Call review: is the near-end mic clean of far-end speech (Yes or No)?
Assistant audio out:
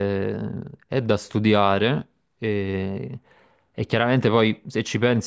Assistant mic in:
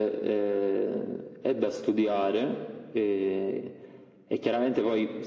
No